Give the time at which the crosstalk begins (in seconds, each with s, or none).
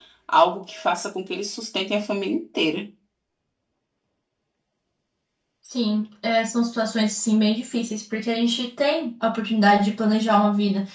none